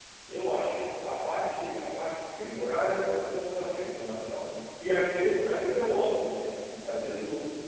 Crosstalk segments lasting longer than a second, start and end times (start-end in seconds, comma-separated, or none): none